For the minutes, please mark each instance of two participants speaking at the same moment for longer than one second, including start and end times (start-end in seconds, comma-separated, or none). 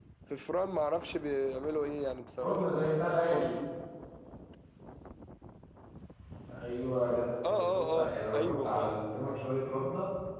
2.4-3.7, 7.5-9.0